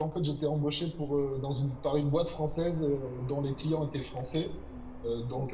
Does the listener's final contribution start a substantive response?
No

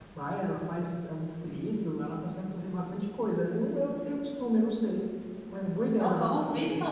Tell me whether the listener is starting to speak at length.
Yes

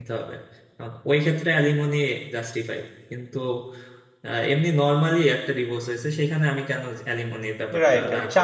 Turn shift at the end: Yes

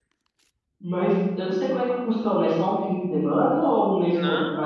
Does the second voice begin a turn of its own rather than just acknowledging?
Yes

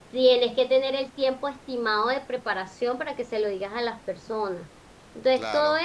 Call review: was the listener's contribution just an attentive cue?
Yes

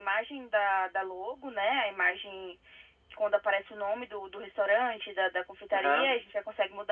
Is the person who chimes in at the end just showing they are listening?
Yes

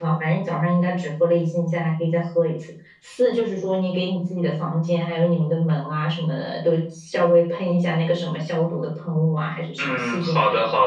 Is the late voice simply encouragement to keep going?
No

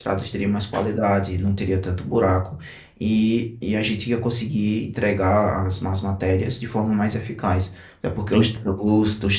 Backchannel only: Yes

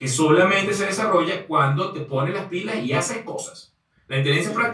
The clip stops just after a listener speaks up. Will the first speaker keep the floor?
Yes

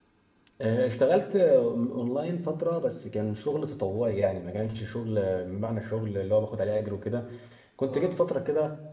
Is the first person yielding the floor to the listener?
No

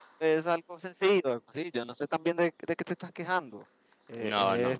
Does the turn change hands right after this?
No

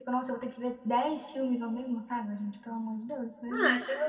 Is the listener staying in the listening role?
No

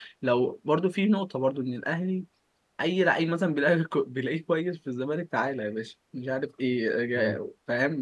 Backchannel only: Yes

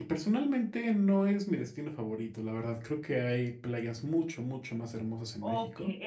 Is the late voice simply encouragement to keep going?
No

